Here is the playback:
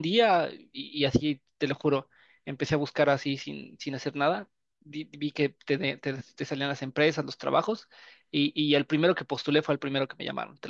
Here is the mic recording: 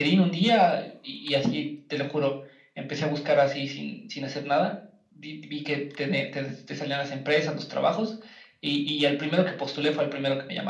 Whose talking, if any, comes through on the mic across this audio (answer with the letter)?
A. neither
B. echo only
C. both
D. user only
B